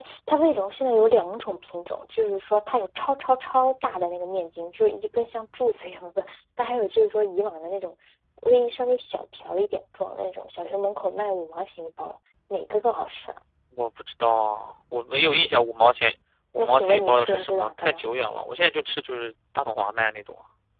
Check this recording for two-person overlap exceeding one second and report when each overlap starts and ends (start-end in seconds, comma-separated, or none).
16.6-18.1